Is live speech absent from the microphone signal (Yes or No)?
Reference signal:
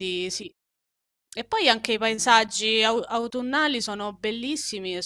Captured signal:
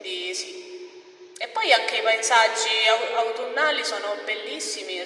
Yes